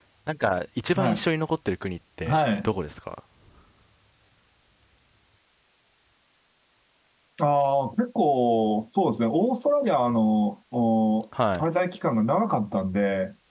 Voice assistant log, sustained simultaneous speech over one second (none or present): none